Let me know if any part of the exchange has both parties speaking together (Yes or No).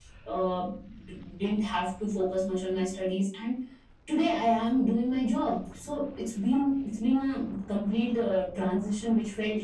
No